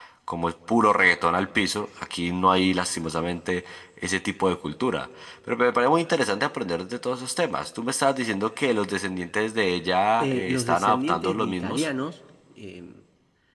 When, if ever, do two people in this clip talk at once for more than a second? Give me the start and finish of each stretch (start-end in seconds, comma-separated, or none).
10.2-11.9